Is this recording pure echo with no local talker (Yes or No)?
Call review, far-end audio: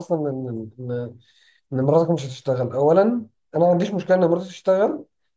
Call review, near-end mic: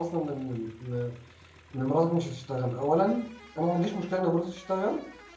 Yes